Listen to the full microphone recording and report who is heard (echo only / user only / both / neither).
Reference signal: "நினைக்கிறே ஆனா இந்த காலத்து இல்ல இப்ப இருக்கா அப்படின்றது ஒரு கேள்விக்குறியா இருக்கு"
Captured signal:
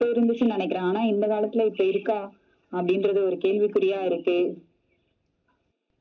echo only